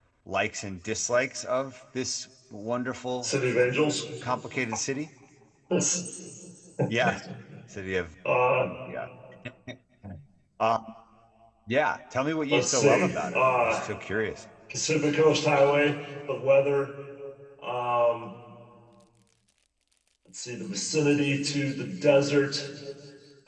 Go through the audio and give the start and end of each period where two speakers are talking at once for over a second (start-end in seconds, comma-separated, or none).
12.5-14.0